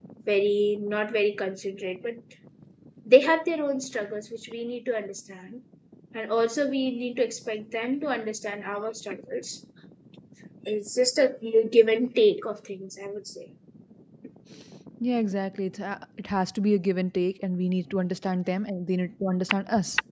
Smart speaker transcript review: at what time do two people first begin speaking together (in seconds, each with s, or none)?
none